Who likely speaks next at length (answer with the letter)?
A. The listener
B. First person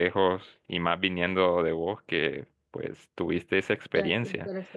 A